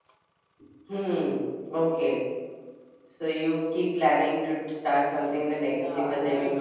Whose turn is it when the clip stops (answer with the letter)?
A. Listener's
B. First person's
A